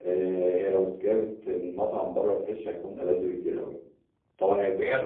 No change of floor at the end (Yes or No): Yes